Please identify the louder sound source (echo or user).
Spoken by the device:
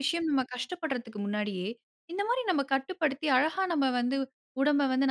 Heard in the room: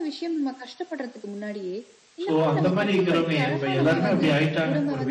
user